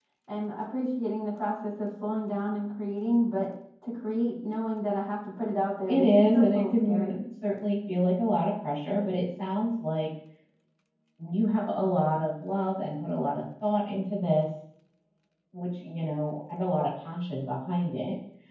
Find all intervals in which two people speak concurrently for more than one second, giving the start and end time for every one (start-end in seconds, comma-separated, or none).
5.9-7.2